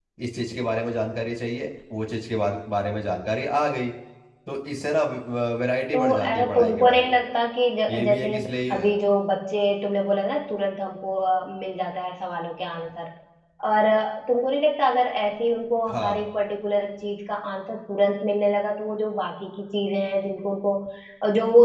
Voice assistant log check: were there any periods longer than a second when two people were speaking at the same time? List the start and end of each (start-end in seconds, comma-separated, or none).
5.9-7.2